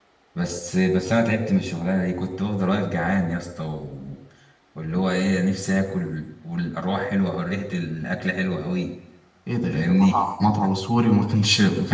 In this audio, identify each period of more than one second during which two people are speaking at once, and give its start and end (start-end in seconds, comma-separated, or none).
none